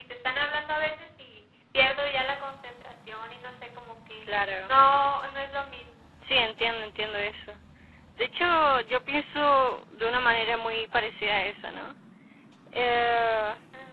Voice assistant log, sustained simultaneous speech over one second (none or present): none